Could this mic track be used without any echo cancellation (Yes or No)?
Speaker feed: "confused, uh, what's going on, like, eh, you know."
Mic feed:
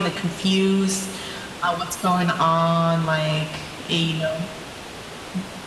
No